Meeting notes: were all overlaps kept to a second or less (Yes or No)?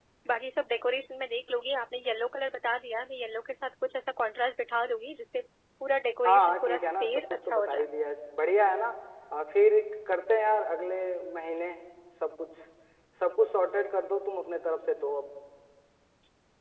No